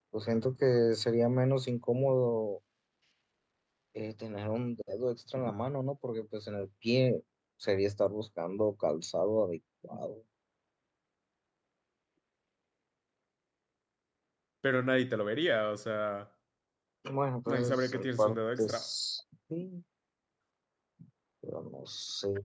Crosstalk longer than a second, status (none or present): present